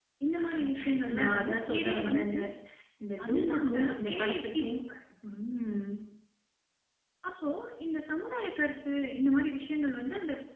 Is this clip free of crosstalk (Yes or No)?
No